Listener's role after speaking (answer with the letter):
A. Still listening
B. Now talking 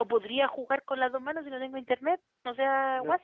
B